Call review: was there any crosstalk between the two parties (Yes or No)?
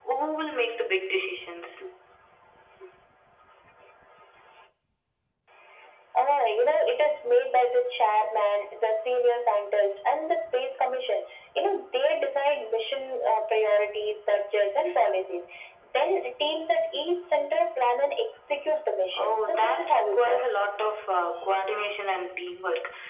Yes